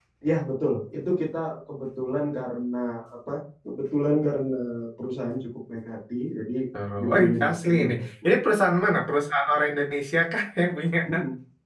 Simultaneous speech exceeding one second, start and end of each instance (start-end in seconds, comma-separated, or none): 7.0-8.3